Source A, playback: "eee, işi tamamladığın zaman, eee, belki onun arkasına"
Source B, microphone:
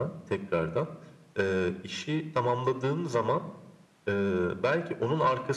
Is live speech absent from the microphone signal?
Yes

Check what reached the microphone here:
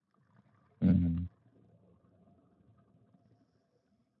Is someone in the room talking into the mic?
Yes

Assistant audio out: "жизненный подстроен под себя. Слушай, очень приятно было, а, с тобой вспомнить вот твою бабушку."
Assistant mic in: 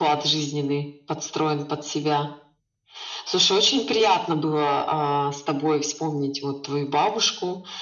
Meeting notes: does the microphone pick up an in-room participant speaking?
No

